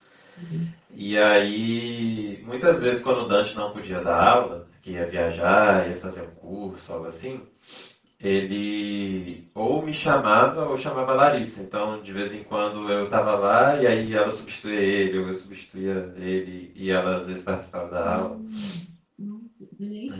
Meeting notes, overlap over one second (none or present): none